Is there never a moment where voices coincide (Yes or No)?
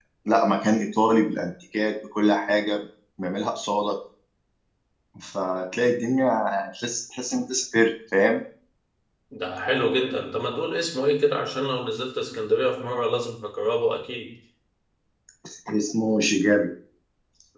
Yes